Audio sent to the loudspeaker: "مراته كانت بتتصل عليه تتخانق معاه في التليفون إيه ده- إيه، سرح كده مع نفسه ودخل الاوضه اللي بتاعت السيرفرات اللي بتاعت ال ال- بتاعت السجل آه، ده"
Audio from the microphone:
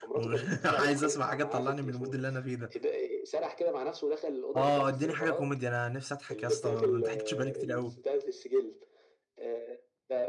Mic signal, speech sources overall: both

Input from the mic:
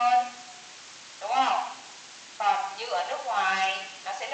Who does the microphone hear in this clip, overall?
echo only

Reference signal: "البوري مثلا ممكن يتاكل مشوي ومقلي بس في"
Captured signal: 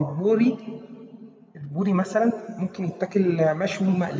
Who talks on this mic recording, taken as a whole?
echo only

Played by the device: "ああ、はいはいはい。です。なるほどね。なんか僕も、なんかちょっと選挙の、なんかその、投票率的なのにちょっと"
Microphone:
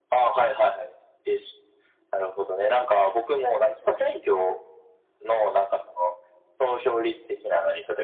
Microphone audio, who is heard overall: echo only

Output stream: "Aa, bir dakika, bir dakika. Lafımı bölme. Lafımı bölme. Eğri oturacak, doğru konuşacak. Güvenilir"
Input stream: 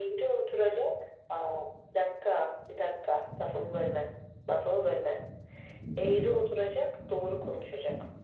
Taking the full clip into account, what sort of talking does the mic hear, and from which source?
echo only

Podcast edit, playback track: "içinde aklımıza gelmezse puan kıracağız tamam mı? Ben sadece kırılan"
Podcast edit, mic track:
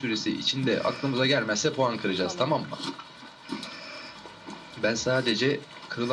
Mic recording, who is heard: both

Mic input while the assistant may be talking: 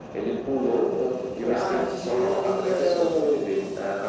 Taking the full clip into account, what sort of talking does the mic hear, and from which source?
echo only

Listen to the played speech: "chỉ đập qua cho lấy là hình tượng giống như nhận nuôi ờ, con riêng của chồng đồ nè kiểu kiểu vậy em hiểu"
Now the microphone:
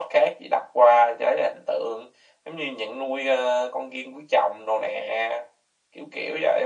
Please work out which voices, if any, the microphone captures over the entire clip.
echo only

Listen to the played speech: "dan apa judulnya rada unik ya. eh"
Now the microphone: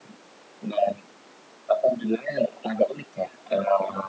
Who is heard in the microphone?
echo only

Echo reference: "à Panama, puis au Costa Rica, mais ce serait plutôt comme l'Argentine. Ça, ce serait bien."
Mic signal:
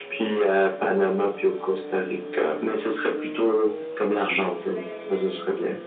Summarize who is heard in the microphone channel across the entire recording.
both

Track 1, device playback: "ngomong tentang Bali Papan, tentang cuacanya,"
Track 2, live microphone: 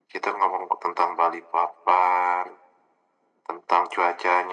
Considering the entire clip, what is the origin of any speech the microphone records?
echo only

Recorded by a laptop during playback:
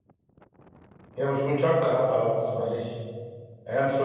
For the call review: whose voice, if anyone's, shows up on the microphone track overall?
user only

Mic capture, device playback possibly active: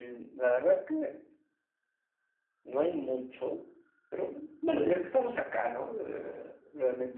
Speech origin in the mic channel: echo only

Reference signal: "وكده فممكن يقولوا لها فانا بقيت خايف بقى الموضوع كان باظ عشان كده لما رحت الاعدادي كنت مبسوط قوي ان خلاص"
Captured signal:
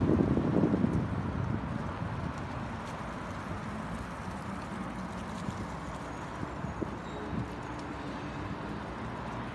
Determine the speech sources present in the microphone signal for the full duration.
neither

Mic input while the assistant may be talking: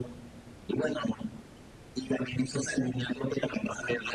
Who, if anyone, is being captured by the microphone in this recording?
echo only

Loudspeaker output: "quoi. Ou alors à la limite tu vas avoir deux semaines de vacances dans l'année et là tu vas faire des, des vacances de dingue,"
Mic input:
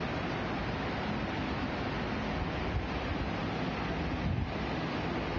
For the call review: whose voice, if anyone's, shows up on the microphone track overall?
neither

